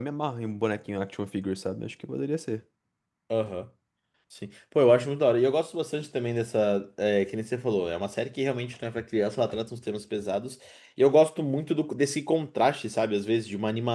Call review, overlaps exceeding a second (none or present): none